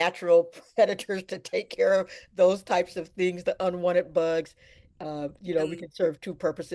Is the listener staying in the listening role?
Yes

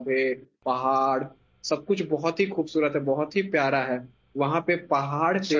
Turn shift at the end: No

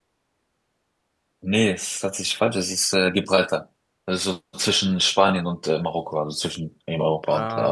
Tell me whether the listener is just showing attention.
No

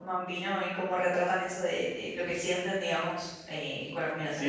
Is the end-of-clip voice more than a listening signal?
Yes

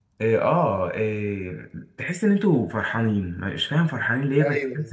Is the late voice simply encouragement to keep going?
No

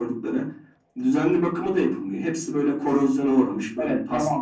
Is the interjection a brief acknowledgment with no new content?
No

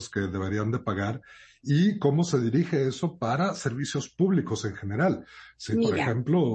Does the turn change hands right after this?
No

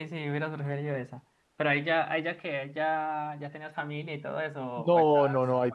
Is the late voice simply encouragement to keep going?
No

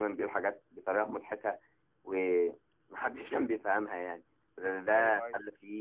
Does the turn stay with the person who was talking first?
Yes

